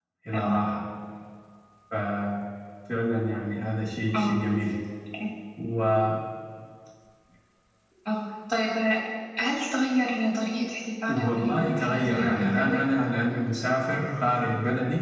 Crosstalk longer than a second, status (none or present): present